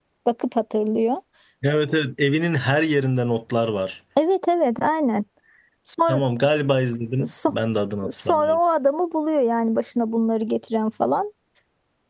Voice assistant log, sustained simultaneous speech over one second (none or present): none